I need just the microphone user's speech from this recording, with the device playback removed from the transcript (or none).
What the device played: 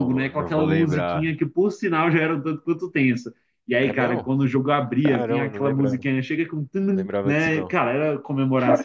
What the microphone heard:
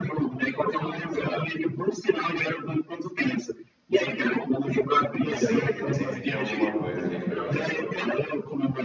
Sempre, sempre tinha alguma coisa ali pra jogar.